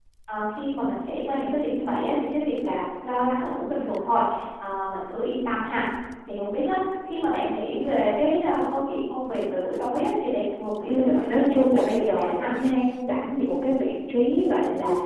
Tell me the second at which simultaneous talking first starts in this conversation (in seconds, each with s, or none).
10.9 s